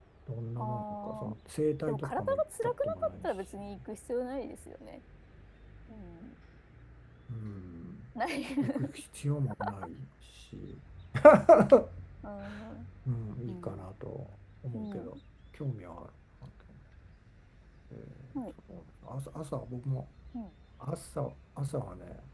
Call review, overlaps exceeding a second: present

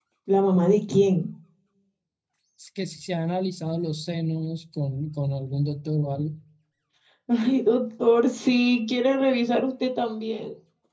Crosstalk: none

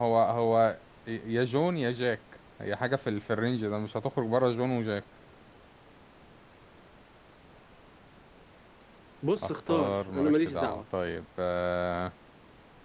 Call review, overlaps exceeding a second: present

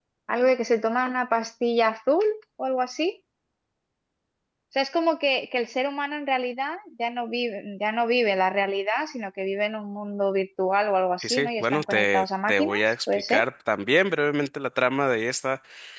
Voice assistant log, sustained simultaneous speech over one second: present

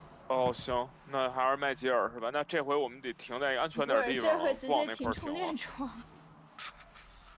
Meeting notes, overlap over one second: present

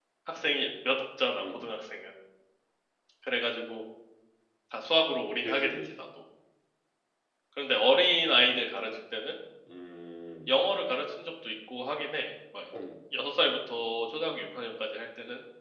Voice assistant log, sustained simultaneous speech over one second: none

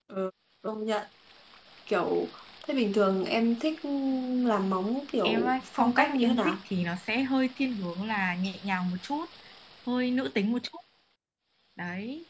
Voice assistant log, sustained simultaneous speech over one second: present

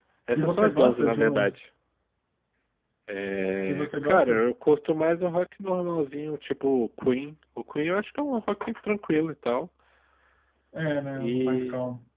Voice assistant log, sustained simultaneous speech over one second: present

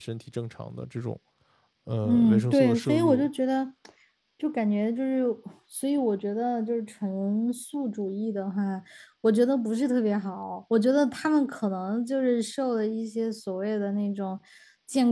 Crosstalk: present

